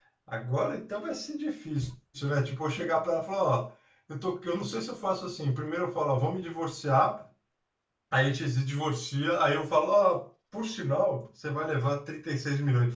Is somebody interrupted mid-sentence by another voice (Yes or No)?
No